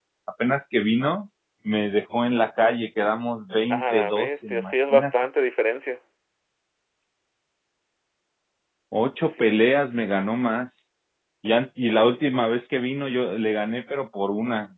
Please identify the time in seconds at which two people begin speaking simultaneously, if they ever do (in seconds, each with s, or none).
3.7 s